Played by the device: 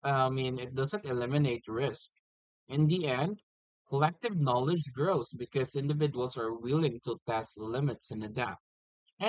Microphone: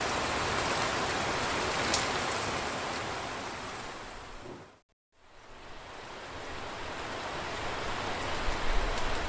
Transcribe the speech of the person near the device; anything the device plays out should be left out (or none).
none